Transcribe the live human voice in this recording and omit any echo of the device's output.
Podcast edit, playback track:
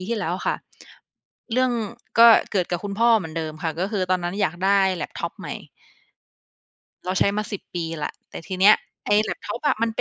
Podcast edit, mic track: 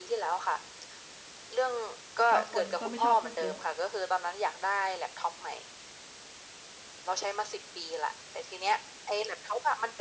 บางคนก็ไม่ชอบพูดเยอะ

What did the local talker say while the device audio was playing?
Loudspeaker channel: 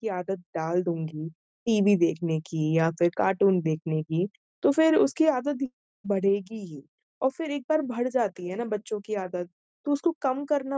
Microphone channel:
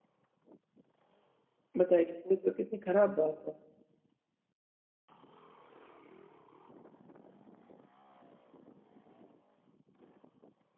बताइए, ये तो कितनी ख़राब बात है।

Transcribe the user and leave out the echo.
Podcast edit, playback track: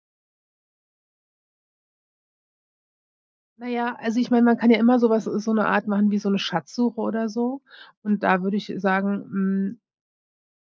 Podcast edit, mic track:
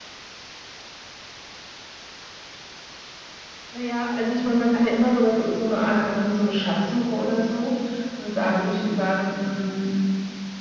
none

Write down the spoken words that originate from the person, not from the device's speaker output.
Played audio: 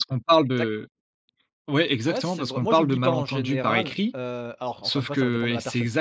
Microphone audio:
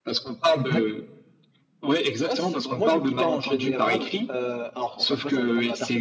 Mmh mh.

